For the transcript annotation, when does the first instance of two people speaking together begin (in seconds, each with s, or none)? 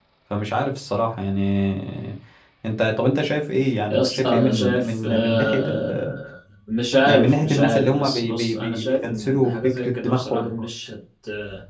3.9 s